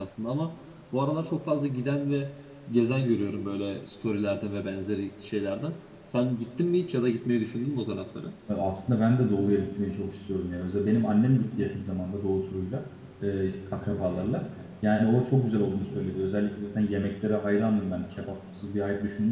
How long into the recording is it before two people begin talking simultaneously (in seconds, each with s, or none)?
none